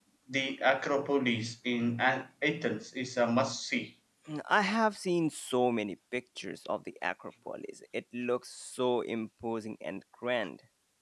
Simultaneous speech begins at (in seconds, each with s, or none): none